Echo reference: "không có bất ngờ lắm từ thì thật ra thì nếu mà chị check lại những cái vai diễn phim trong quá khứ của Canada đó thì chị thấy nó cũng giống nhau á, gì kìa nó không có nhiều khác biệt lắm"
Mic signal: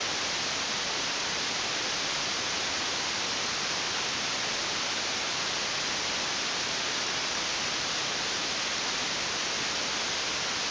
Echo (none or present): none